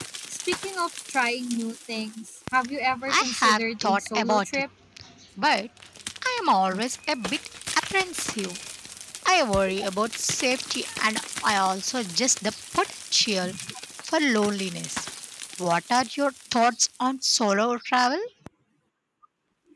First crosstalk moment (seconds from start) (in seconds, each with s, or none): 3.1 s